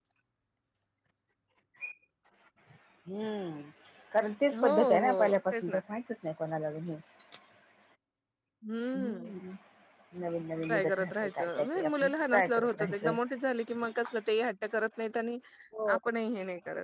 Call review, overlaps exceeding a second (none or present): present